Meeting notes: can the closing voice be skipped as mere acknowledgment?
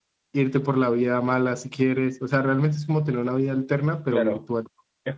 No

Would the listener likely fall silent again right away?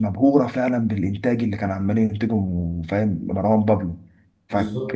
Yes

